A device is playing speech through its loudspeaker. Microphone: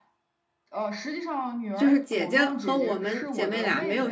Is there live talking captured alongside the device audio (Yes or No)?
Yes